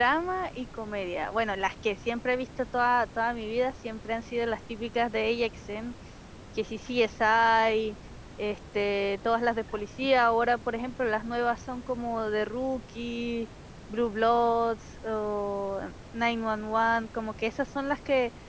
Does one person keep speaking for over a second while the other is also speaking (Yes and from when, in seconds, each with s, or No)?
No